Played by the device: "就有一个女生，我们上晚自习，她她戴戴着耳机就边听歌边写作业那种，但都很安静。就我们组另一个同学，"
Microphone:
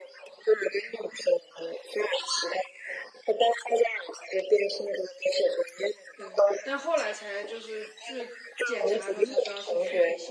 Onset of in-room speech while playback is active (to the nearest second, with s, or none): 6 s